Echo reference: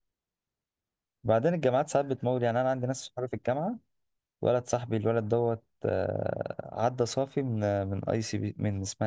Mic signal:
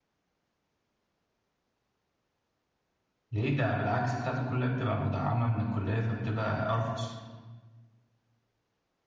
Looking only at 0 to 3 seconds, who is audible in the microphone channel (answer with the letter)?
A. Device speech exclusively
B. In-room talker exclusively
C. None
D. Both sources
C